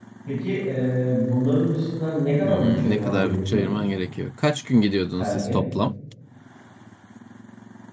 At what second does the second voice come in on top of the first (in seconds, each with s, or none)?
2.4 s